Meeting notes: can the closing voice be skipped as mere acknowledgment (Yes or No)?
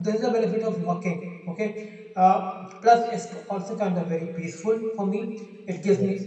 Yes